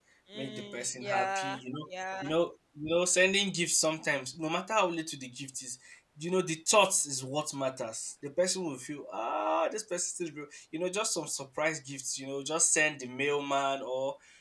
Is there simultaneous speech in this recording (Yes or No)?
Yes